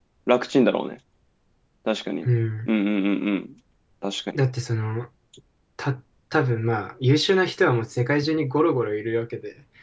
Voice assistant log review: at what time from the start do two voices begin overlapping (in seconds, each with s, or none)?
none